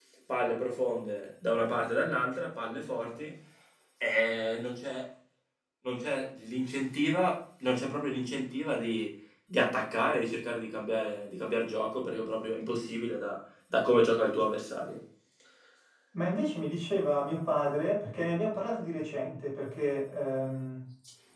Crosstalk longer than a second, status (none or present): none